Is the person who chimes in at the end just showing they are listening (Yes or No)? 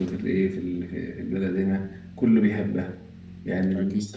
Yes